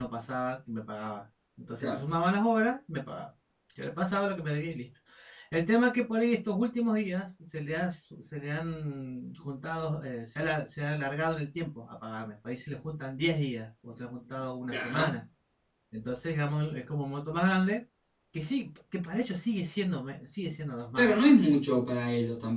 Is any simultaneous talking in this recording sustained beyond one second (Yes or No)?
No